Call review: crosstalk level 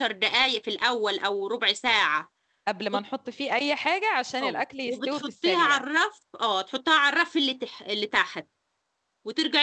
present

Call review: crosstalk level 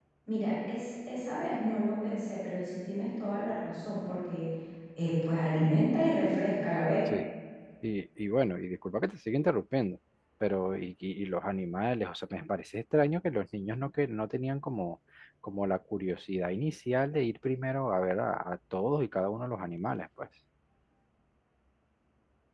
none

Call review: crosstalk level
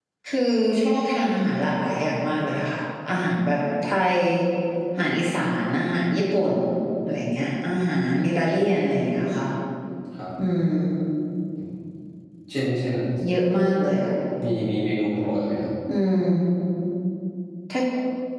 none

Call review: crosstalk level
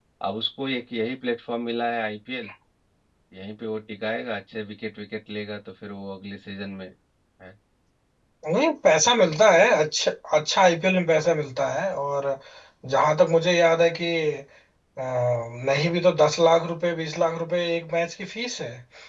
none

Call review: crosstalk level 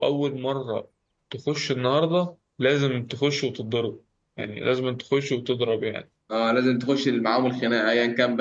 none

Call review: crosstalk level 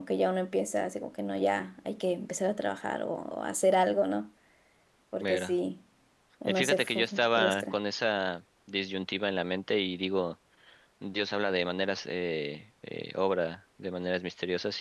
present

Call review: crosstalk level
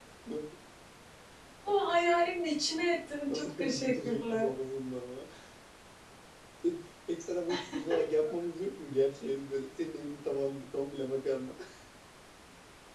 present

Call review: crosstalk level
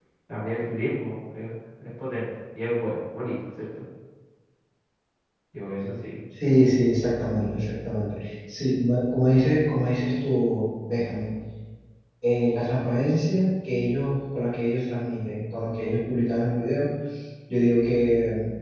none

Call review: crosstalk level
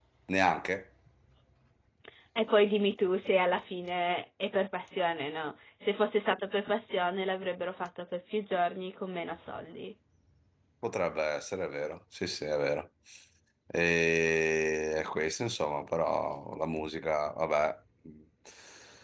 none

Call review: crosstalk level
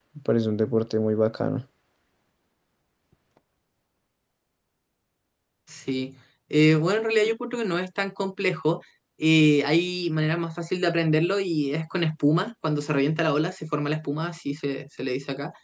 none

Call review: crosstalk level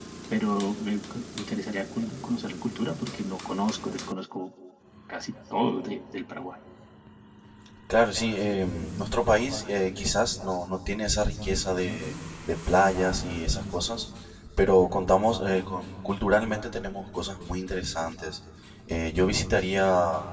none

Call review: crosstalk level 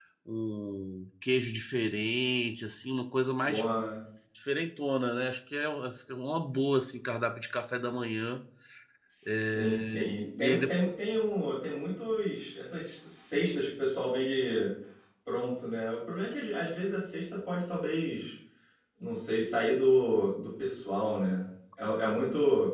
present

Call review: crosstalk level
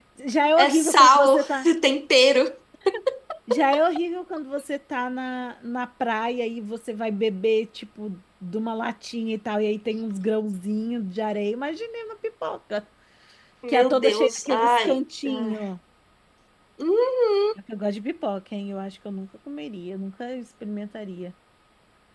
present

